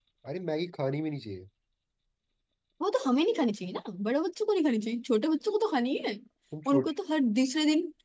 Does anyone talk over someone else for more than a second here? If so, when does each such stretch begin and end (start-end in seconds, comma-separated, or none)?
none